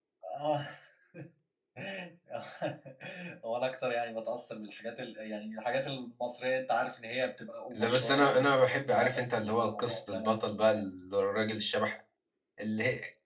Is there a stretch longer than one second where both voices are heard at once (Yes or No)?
Yes